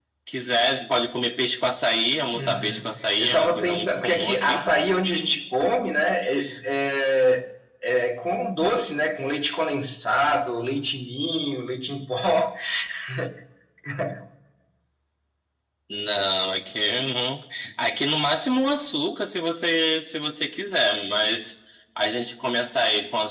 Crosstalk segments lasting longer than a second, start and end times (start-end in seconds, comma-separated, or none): 2.3-4.6